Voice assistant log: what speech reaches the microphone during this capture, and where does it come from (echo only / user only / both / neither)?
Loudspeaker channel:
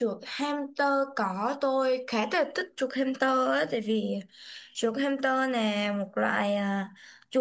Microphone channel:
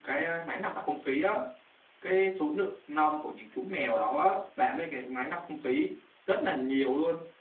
user only